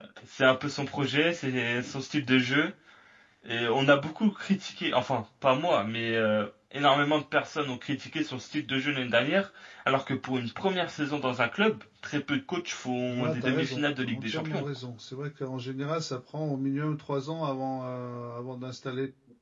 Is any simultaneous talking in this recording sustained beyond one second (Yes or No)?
Yes